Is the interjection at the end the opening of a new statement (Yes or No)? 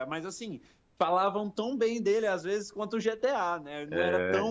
No